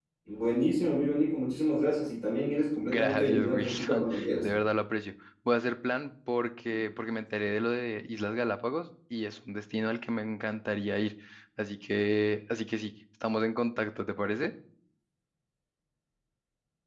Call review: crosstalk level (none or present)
present